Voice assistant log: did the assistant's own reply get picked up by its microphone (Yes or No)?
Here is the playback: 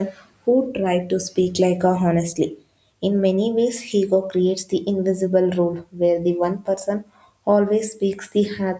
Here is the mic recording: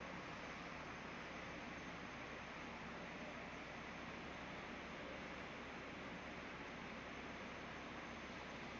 No